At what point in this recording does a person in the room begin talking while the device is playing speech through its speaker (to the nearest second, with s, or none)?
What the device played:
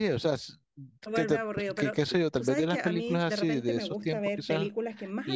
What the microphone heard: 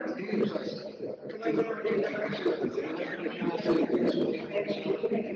none